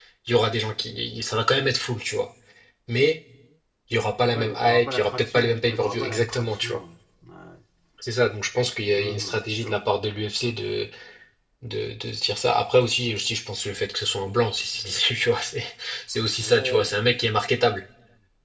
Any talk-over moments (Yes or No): Yes